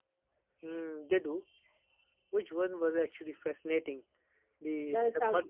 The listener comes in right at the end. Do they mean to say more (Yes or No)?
No